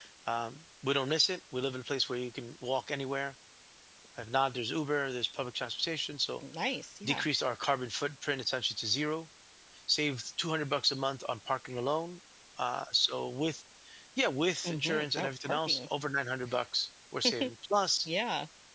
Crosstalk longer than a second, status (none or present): present